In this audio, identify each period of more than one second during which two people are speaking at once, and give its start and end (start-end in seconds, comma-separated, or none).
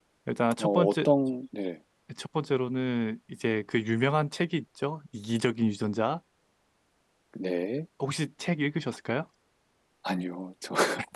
none